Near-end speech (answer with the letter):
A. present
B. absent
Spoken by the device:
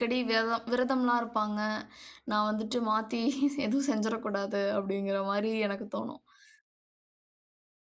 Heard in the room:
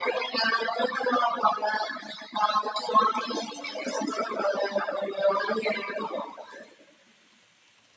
B